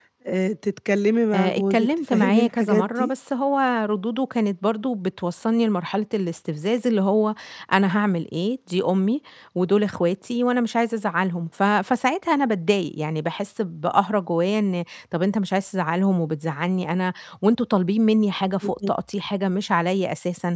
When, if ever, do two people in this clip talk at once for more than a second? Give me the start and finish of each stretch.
1.3-3.1

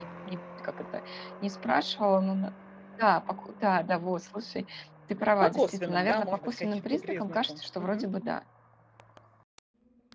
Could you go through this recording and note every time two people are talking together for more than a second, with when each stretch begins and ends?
5.2-8.1

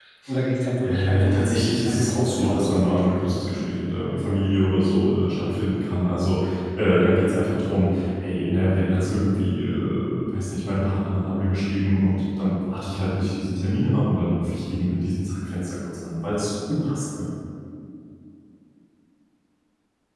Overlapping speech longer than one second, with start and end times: 0.8-3.4

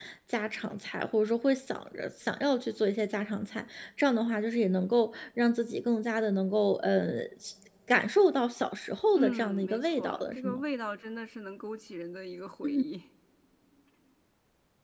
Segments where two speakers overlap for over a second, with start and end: 9.1-10.6

